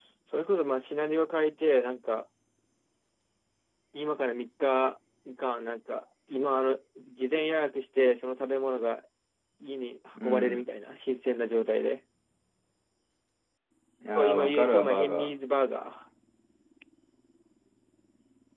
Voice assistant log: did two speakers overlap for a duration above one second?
Yes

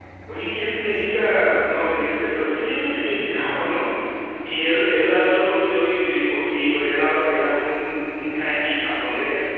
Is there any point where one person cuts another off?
No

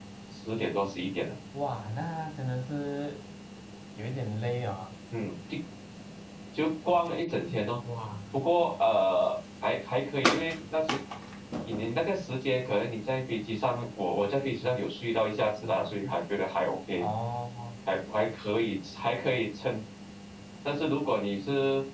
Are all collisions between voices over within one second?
Yes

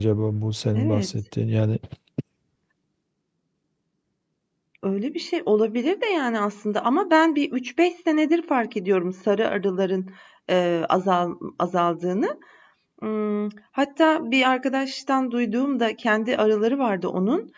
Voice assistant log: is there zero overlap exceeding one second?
Yes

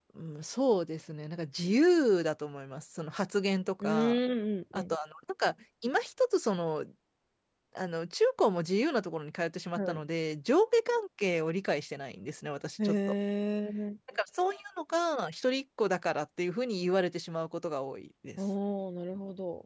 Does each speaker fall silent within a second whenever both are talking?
Yes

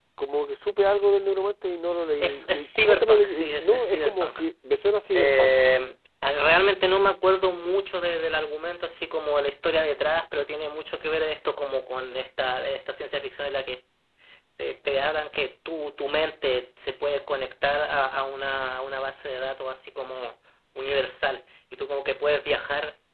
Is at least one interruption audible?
Yes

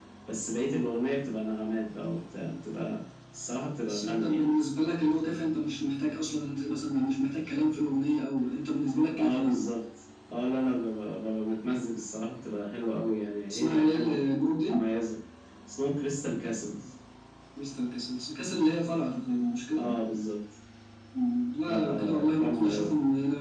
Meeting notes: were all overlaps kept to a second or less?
No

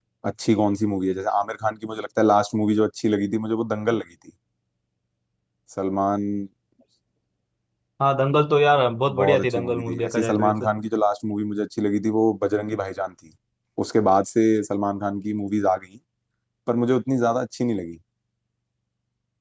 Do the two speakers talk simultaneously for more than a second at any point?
Yes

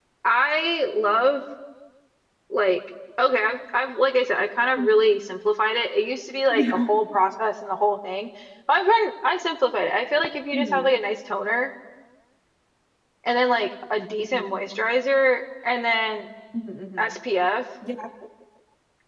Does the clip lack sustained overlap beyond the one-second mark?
Yes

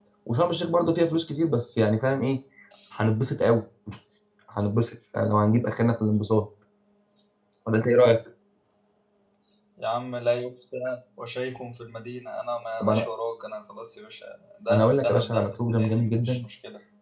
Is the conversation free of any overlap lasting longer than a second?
No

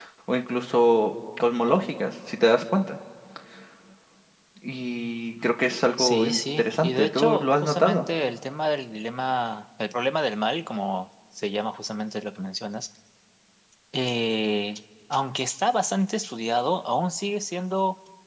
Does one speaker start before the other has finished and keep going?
Yes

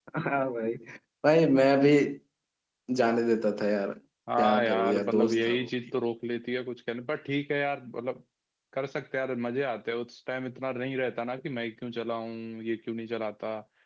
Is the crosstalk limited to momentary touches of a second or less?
No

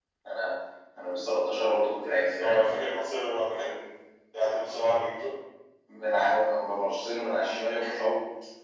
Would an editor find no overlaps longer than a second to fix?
Yes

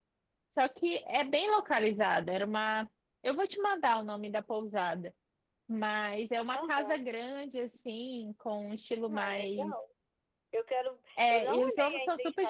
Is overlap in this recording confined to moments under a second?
No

